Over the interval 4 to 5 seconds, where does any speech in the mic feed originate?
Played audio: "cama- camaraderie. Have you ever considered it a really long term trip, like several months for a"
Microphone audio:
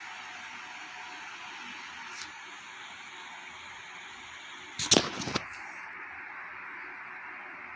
neither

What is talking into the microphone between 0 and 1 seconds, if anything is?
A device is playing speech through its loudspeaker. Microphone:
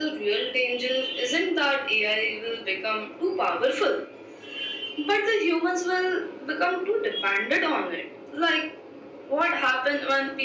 echo only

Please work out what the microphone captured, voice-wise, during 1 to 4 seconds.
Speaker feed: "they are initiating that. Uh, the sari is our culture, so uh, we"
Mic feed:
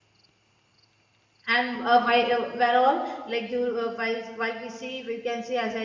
user only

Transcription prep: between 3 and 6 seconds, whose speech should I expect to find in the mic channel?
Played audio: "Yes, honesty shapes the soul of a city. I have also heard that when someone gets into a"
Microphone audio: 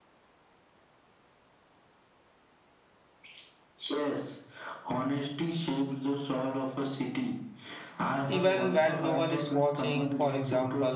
echo only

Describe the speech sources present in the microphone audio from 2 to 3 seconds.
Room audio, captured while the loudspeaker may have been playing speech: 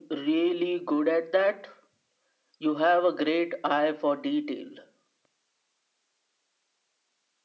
echo only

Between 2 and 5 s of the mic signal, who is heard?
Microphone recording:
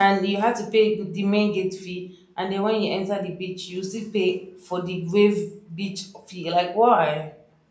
user only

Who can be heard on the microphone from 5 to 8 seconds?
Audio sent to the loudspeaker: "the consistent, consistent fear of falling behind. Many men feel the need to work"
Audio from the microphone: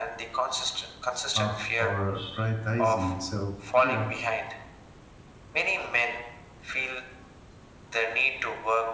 echo only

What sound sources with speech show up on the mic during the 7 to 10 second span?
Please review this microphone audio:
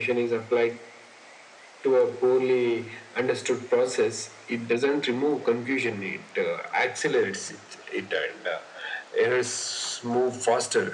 echo only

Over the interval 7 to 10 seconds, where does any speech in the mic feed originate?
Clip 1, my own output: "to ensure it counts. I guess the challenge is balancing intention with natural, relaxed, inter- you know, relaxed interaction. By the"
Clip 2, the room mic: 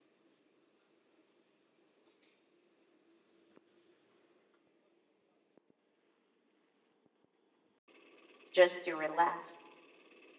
user only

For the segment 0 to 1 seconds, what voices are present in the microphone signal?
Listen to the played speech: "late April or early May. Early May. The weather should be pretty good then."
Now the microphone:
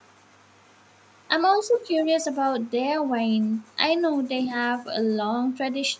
neither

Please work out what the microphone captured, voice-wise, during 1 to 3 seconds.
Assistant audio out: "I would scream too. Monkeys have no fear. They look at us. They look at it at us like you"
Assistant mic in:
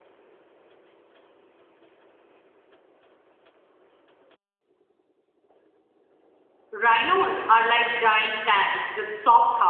neither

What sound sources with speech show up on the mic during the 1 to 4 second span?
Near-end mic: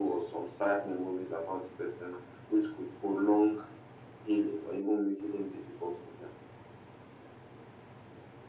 echo only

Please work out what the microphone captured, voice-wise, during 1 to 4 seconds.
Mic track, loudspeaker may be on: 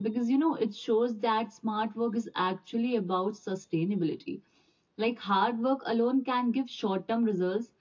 user only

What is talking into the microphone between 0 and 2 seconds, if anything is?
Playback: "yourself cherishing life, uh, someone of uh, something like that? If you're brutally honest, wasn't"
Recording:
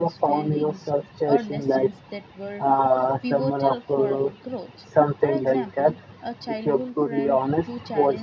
both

